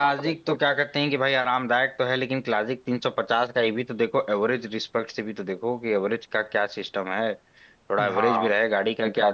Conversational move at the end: listening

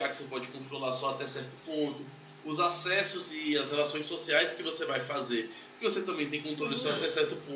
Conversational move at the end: listening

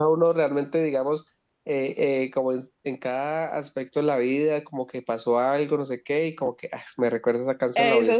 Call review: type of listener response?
taking over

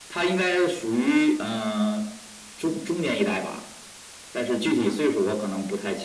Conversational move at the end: listening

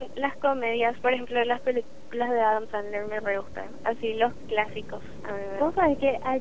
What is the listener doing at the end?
taking over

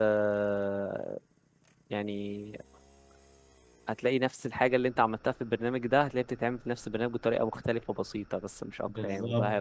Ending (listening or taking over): taking over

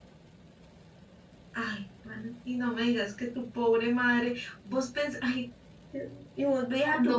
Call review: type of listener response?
listening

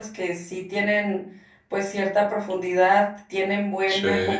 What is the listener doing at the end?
listening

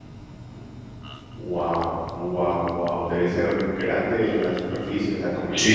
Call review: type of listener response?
taking over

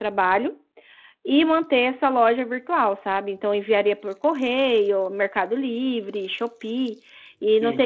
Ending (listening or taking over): listening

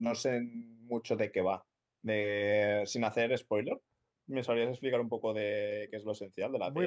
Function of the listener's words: taking over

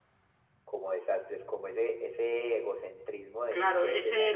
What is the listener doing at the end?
taking over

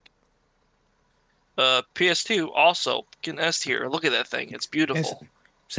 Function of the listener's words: taking over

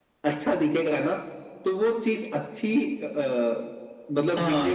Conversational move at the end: taking over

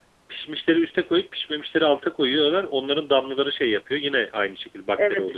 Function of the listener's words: taking over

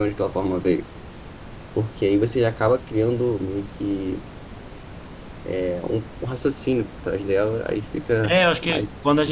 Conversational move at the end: taking over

